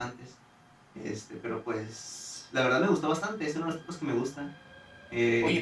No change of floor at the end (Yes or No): No